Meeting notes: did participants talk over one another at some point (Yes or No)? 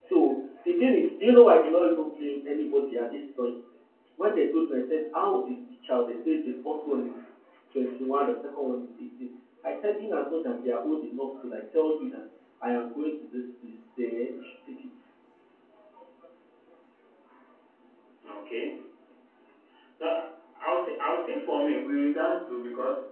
No